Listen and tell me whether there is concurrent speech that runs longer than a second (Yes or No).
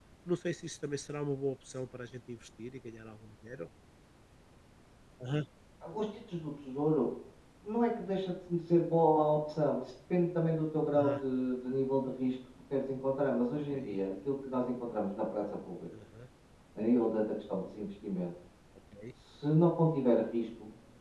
No